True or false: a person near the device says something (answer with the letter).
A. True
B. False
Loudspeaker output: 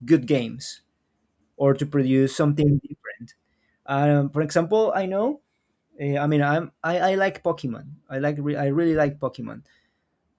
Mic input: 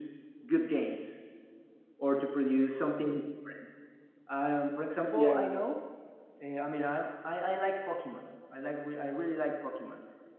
A